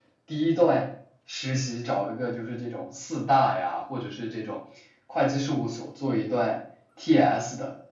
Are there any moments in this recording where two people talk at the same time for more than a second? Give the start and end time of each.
none

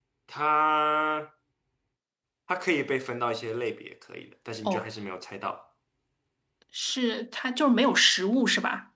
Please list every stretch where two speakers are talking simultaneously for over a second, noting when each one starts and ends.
none

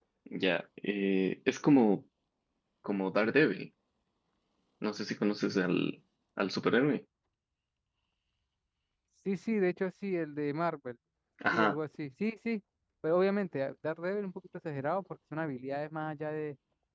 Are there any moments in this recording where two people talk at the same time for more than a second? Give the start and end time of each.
none

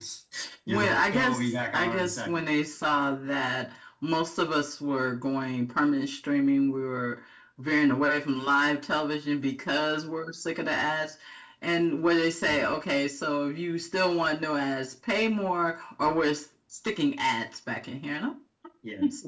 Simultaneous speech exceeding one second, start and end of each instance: 0.7-2.4

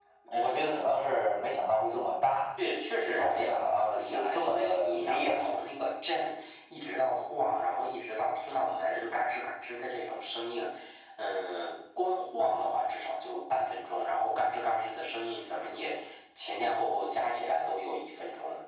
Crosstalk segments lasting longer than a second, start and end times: 3.1-5.5

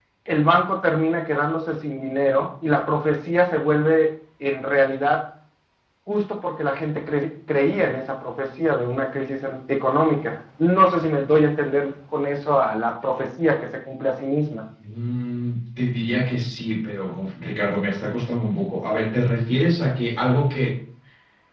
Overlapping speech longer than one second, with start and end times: none

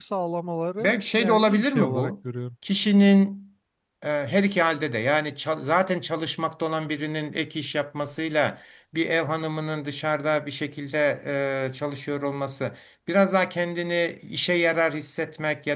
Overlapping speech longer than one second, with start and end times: 0.8-2.1

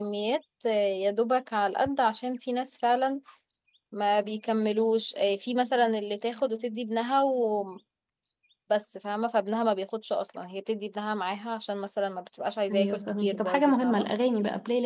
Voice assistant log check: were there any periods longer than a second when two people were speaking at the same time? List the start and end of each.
12.7-14.1

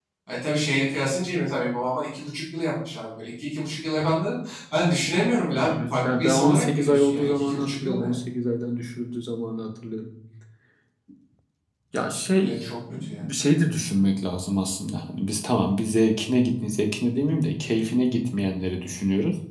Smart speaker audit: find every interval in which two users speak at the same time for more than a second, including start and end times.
5.7-8.1

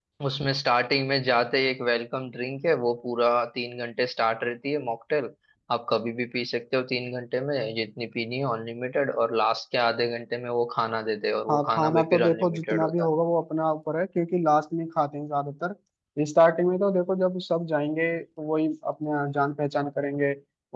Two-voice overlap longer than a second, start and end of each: 11.5-13.1

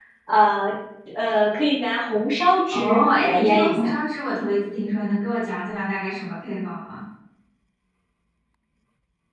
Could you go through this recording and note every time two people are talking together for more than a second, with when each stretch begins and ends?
2.7-3.9

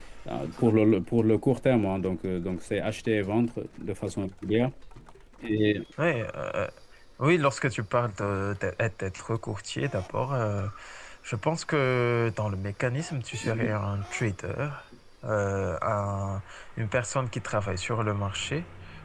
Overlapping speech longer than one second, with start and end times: none

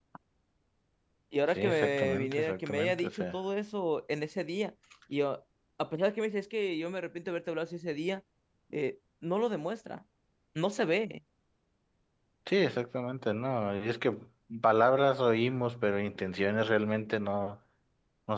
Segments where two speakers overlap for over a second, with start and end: 1.5-3.4

